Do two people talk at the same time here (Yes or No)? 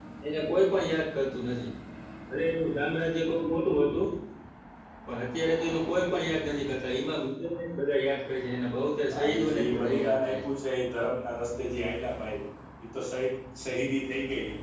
Yes